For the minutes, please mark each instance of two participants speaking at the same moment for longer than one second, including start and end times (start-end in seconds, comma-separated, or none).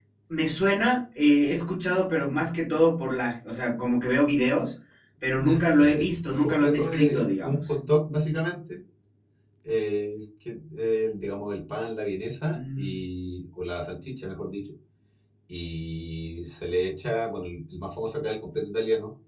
5.4-7.7